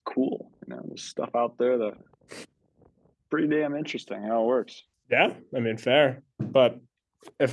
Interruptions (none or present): none